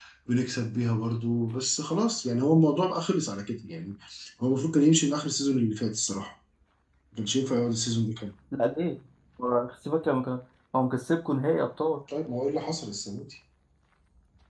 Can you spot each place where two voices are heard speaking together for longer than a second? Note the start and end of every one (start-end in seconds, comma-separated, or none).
none